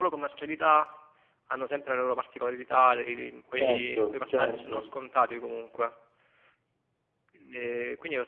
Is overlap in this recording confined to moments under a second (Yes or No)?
No